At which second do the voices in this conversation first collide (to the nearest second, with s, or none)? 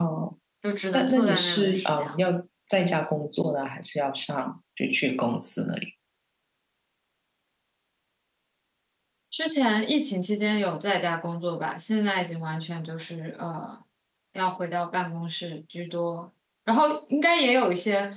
1 s